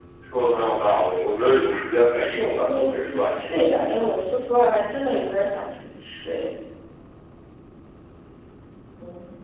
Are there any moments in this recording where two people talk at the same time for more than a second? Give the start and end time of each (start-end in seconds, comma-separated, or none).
2.3-3.8